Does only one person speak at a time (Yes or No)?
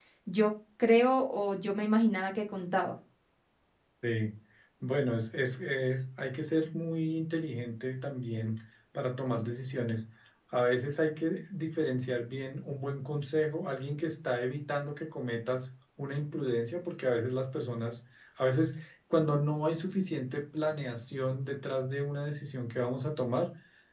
Yes